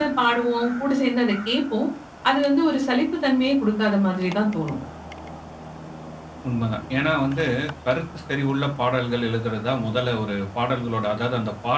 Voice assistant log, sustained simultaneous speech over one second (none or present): none